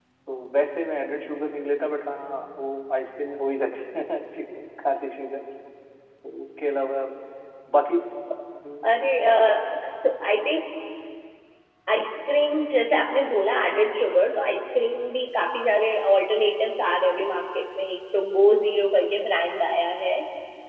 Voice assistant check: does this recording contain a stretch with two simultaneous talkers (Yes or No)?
No